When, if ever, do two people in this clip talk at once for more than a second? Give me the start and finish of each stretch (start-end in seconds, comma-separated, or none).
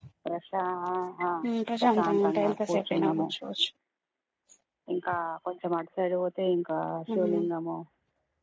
1.8-3.3